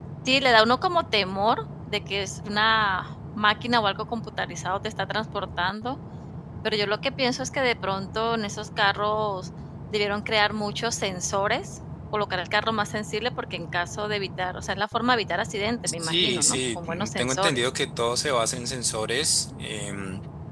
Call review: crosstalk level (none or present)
present